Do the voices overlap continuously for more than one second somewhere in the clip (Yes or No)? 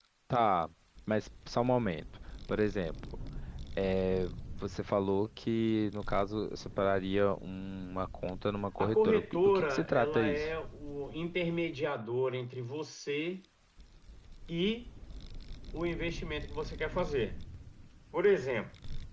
Yes